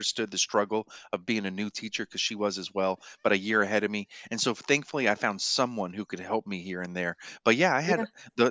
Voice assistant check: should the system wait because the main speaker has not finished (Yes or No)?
Yes